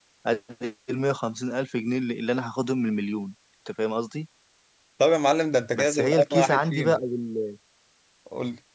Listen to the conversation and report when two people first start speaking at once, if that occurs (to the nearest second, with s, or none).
6 s